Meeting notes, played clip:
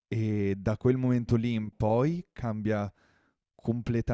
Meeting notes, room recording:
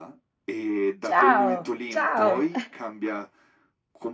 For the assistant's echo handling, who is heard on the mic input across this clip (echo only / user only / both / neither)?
both